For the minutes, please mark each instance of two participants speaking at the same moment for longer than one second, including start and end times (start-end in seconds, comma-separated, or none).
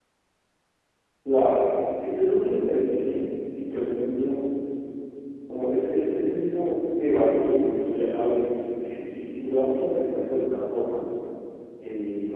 none